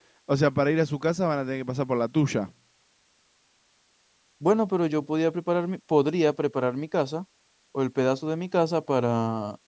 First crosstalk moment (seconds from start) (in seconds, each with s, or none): none